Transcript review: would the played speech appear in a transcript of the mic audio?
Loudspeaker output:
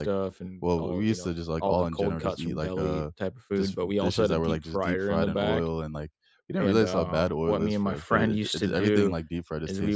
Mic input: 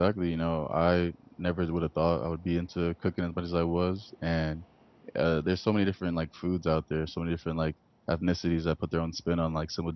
No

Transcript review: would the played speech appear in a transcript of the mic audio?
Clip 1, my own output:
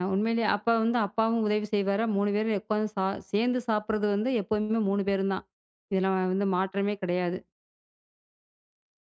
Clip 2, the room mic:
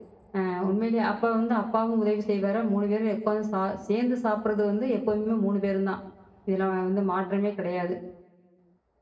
Yes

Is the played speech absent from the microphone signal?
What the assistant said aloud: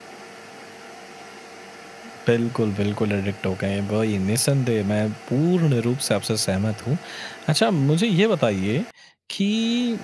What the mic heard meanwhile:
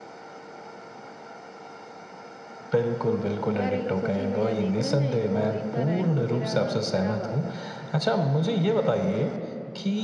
No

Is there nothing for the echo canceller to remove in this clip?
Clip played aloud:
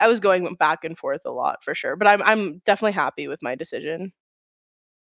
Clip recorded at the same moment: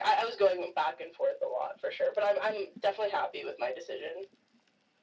No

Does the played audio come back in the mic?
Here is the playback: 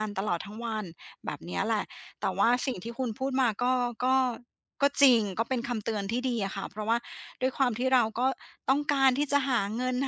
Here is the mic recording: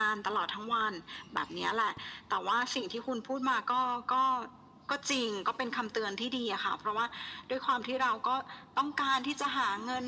Yes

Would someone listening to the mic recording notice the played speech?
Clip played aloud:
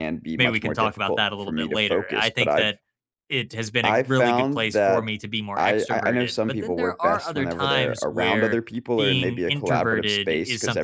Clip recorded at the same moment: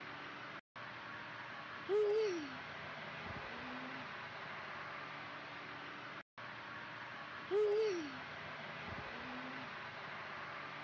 No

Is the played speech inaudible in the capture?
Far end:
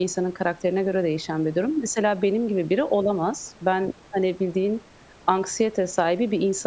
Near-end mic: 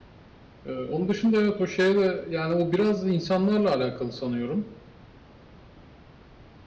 Yes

